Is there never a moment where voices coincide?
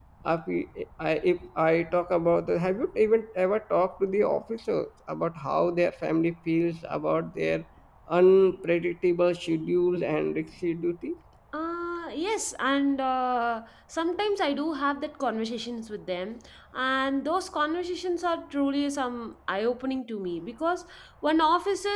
Yes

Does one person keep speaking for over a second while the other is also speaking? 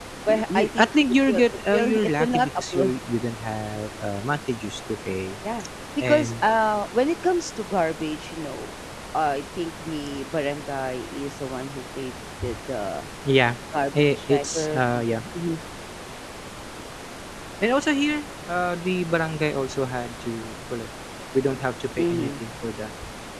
Yes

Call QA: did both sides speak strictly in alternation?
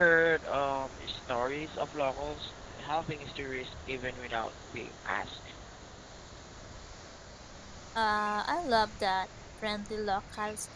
Yes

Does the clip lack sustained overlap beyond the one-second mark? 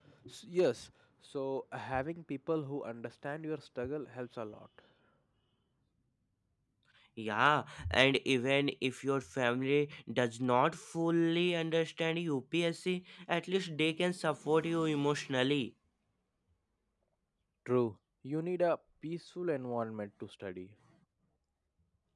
Yes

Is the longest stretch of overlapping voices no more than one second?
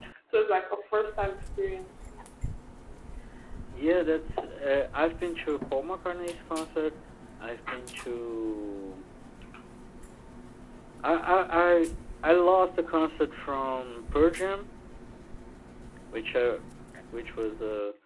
Yes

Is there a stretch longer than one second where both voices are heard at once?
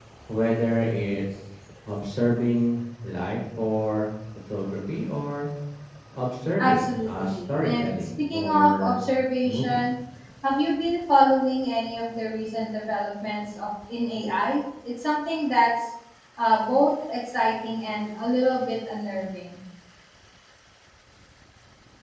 Yes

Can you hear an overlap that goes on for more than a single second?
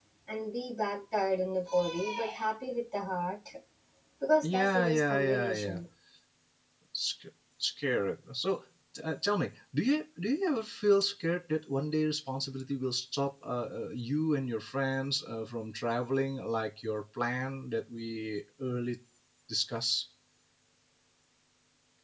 Yes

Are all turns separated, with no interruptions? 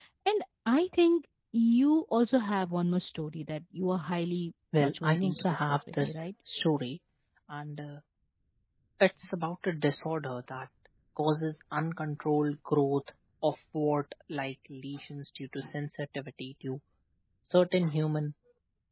No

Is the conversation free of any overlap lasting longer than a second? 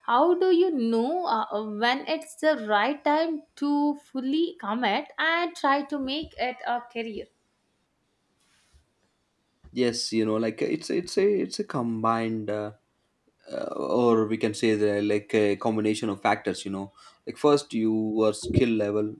Yes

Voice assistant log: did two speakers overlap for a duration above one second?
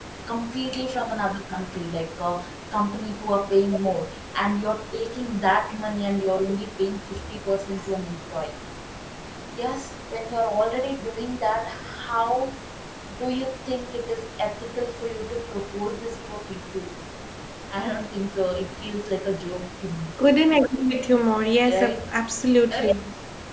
No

